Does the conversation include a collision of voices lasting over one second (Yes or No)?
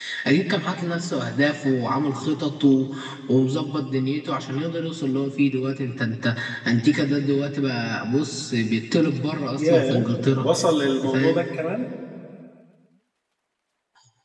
No